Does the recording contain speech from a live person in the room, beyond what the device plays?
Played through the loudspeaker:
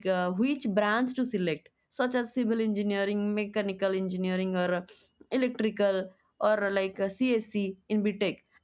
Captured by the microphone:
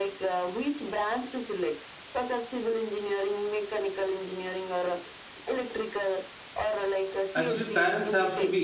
Yes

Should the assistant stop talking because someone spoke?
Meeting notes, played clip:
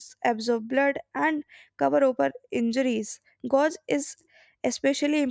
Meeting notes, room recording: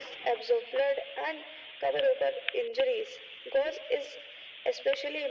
No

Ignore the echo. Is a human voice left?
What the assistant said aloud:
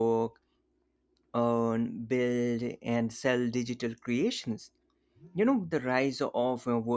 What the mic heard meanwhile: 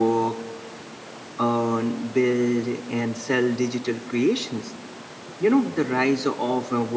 No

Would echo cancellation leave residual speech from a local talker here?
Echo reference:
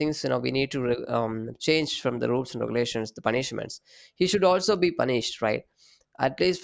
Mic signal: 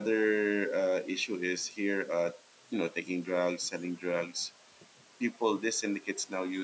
Yes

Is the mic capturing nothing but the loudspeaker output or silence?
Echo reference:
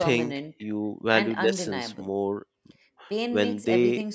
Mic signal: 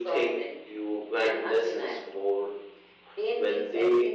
Yes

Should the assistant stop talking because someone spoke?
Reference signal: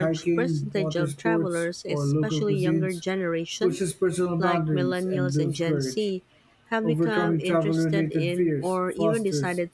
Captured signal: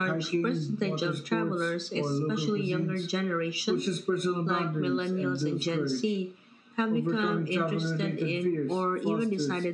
No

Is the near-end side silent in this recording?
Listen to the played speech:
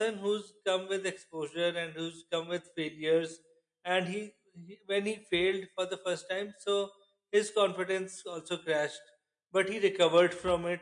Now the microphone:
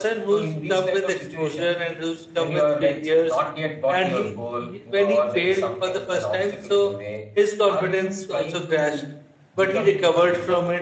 No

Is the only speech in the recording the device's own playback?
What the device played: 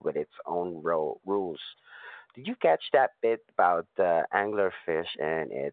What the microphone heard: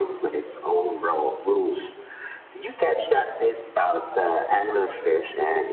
Yes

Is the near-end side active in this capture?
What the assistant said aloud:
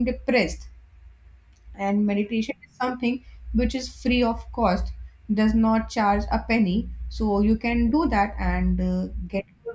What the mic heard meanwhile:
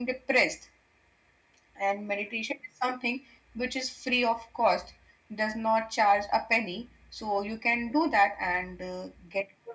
No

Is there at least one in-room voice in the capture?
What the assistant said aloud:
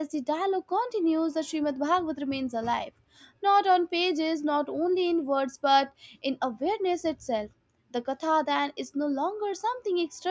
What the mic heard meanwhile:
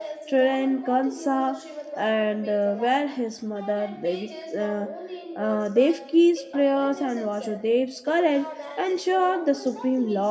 Yes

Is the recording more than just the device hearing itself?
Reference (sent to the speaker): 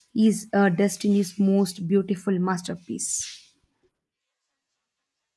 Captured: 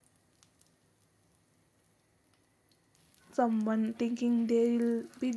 Yes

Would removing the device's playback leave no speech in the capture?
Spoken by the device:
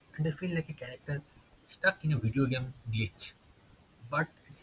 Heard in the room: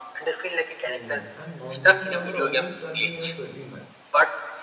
No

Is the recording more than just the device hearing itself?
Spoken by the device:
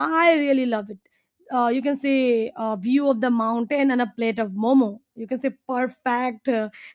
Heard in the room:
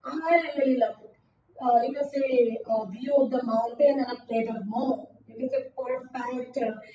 No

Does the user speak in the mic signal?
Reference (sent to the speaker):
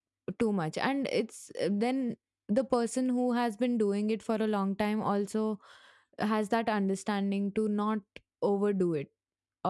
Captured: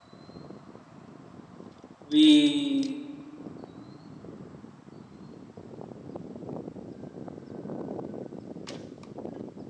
Yes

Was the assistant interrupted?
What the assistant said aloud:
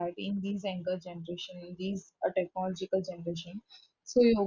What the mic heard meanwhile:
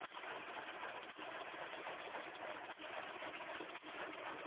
No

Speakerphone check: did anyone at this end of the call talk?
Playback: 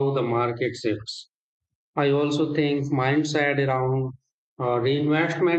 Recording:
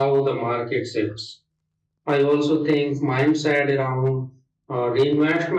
No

